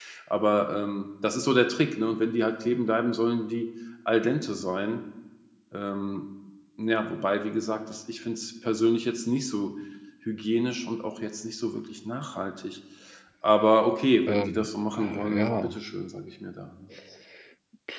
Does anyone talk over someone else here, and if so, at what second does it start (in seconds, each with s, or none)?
14.3 s